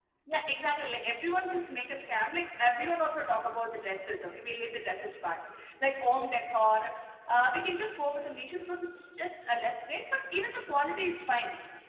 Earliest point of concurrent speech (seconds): none

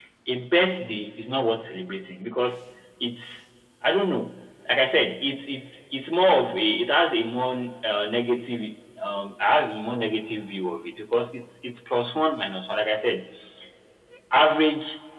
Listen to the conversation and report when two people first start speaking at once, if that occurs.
none

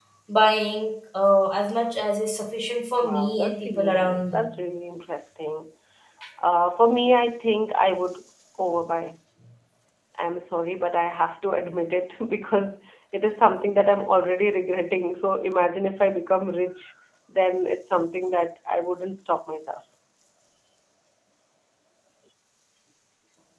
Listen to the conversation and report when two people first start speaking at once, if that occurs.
3.0 s

